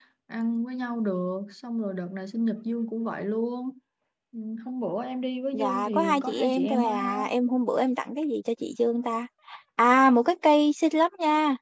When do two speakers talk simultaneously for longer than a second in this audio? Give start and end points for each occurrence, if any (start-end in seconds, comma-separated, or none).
5.5-7.2